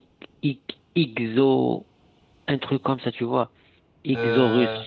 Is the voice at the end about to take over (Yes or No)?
No